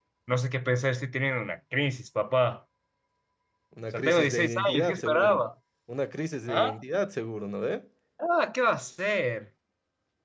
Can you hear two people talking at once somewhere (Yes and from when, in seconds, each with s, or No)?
Yes, from 3.9 s